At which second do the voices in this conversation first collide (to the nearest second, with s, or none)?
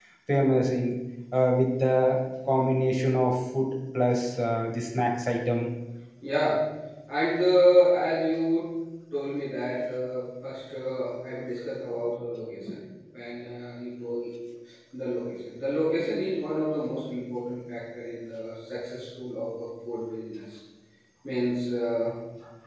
none